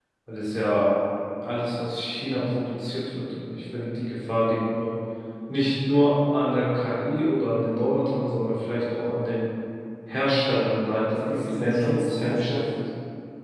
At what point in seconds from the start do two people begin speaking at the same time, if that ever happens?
11 s

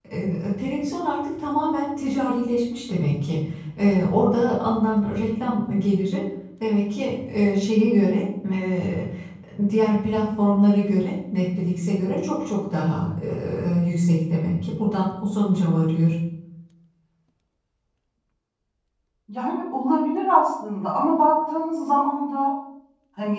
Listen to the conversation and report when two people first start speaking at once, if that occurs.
none

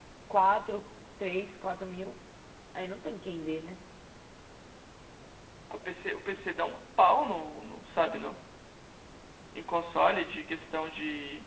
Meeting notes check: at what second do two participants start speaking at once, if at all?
none

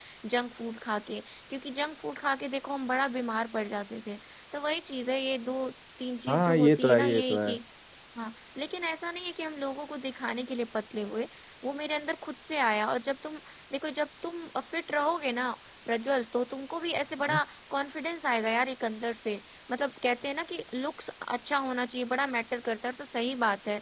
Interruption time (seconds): 6 s

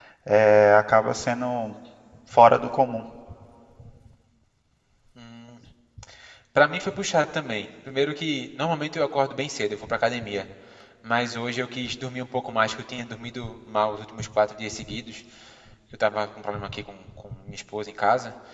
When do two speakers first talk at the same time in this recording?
none

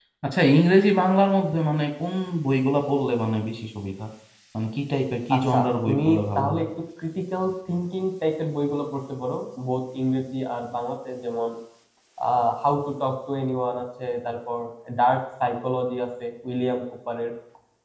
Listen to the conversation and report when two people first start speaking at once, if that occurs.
5 s

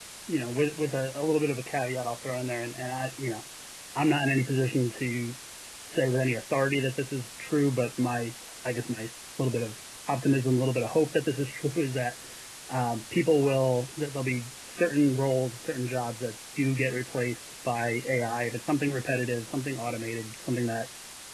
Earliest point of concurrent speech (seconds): none

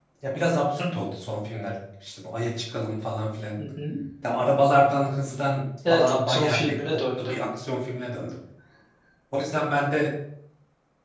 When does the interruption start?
6 s

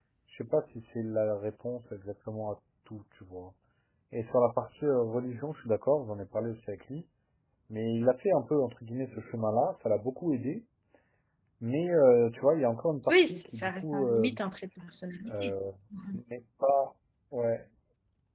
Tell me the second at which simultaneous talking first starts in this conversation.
13 s

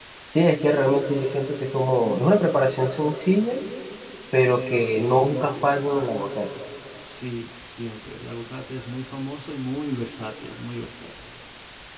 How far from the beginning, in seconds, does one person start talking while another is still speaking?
none

